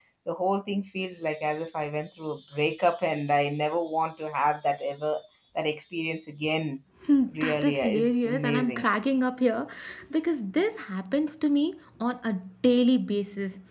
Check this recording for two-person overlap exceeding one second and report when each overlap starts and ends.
7.3-8.9

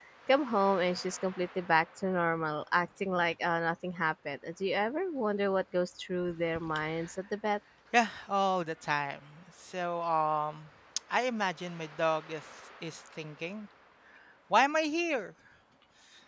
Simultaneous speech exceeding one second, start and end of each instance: none

